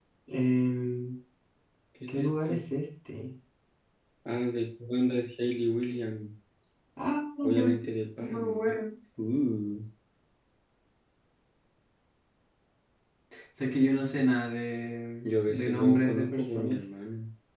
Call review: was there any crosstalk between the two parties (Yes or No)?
Yes